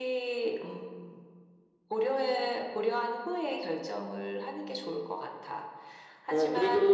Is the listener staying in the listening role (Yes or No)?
No